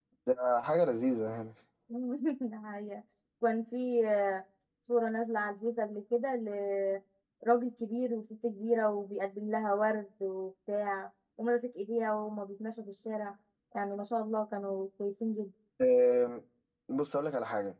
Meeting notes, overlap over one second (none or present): none